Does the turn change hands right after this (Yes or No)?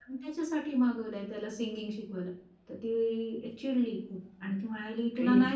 No